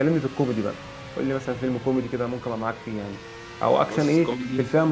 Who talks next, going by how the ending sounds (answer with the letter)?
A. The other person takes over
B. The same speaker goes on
B